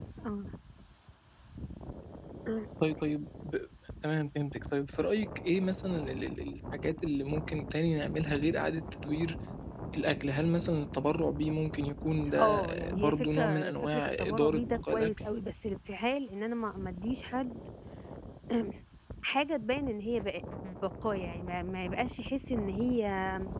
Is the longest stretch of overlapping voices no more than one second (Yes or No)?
No